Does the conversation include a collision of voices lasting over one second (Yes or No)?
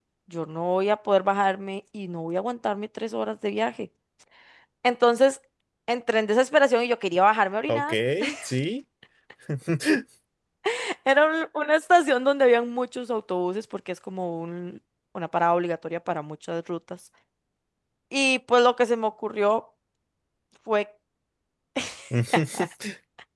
No